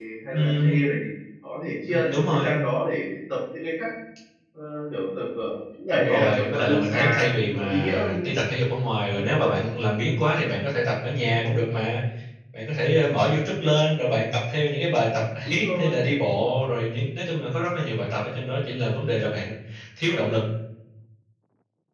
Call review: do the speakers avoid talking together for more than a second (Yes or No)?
No